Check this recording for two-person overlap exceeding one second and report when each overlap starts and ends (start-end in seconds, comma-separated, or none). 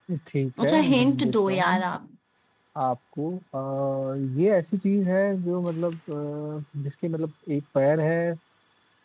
0.6-1.9